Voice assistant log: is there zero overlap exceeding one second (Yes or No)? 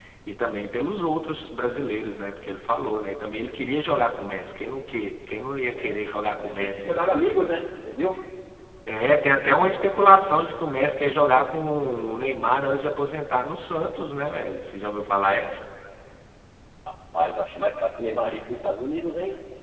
No